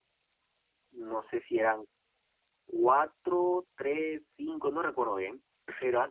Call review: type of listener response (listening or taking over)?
listening